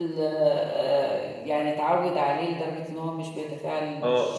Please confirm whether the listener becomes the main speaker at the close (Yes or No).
Yes